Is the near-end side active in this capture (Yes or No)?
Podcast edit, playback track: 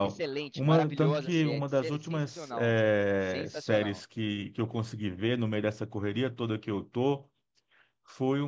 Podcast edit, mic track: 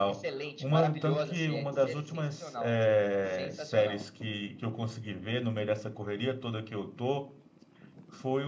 No